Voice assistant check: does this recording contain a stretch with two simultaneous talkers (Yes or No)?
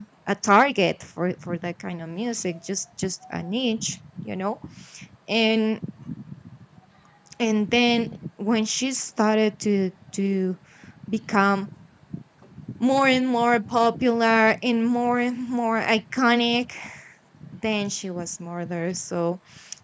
No